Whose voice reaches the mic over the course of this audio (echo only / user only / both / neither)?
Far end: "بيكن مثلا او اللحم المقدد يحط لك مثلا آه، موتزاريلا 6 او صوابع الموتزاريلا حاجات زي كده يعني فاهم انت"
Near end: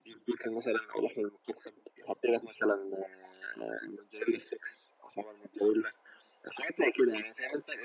echo only